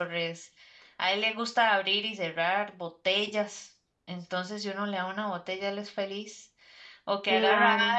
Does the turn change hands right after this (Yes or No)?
No